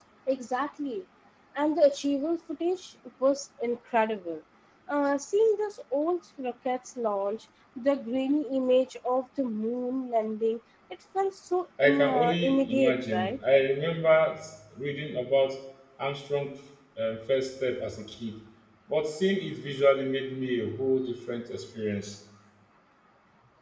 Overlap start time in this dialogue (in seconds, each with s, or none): 11.8 s